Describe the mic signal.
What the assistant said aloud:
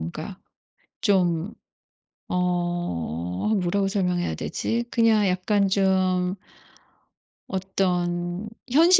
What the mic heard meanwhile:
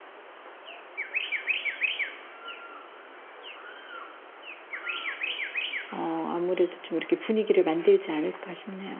user only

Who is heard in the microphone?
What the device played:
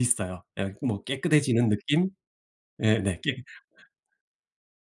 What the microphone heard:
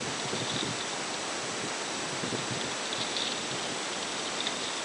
neither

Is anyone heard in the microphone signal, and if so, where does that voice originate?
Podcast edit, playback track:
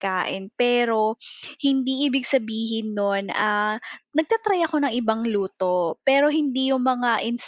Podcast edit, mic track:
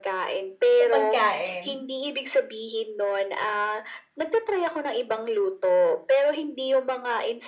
both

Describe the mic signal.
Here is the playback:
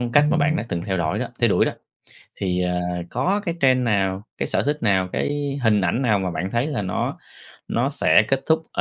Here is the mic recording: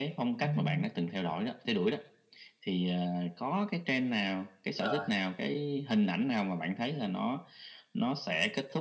both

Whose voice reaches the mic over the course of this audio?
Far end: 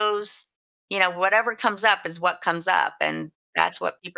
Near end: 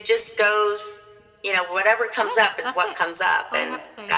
both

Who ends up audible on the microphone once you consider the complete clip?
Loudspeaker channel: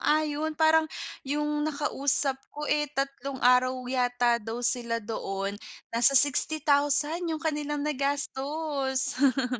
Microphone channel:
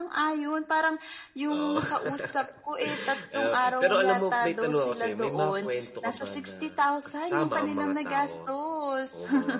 both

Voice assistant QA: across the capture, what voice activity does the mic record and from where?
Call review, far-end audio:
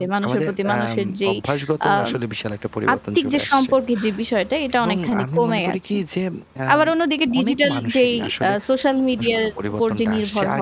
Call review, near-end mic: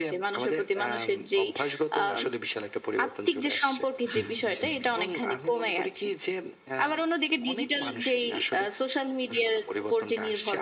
both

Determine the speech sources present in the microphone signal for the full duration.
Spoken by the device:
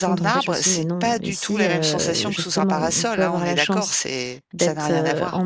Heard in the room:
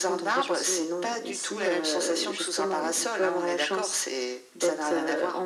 echo only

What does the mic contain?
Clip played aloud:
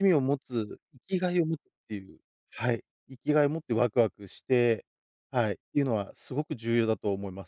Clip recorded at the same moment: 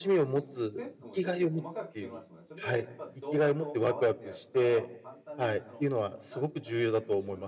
both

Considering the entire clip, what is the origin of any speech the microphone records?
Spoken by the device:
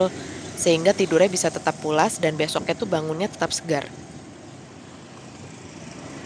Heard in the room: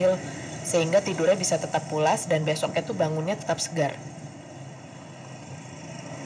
echo only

